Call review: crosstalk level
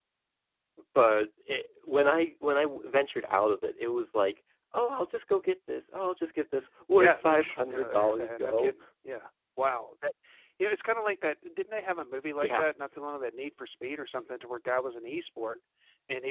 present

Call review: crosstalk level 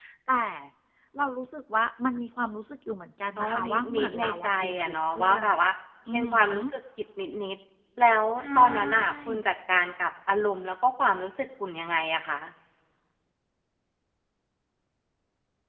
present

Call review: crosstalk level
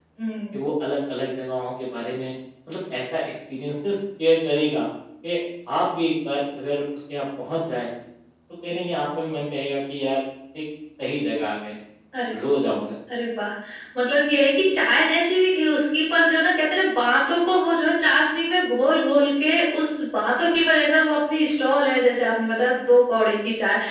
none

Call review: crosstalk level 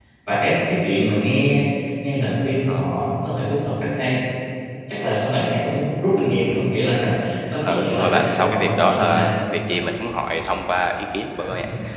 present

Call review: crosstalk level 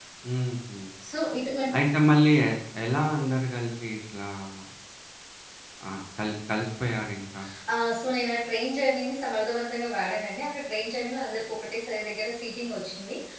none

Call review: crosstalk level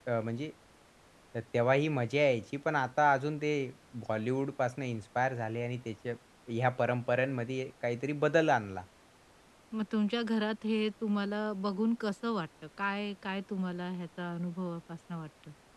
none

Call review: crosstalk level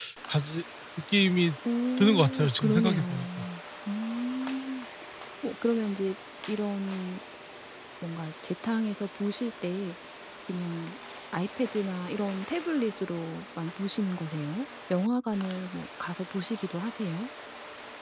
present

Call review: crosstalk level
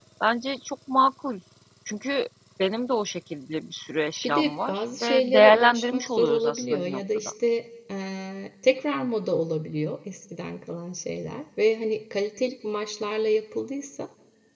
present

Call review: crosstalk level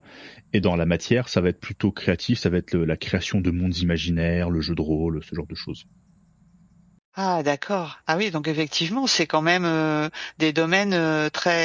none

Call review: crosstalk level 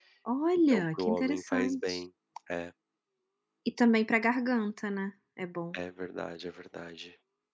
present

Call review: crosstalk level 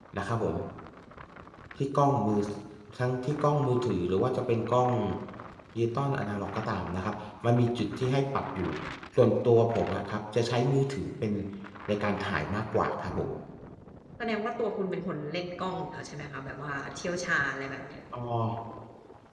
none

